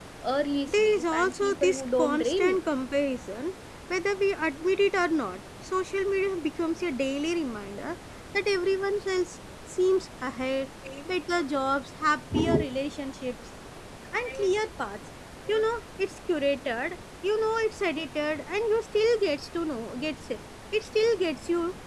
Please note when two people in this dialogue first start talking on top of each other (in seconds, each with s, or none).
0.7 s